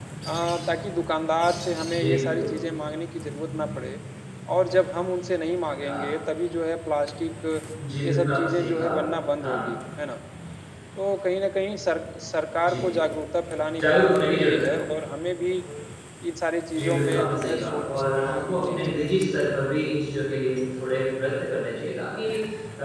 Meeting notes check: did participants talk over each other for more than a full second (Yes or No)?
Yes